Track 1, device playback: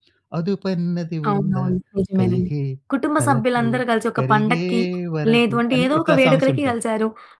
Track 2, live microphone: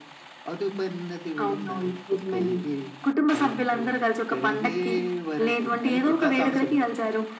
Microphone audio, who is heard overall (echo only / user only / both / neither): echo only